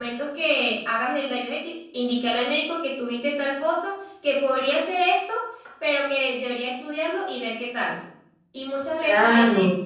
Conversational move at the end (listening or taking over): listening